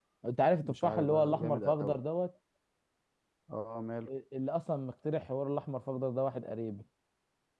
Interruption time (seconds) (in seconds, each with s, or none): 0.6 s